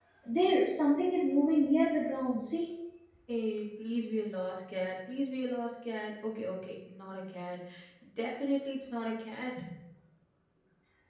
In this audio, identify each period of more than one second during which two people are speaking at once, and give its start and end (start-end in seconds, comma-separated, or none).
none